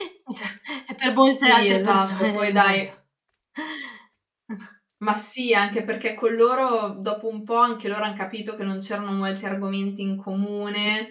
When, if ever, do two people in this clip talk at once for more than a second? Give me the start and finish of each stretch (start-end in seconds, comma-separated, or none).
1.3-2.8